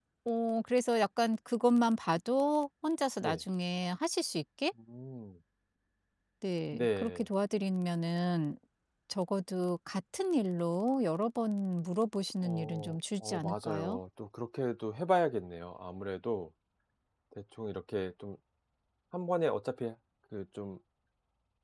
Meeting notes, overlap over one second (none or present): present